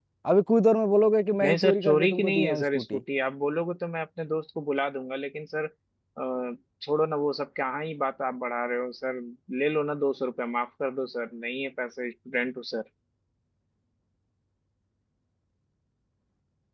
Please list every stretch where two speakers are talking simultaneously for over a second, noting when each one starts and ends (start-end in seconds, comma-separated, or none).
1.4-3.0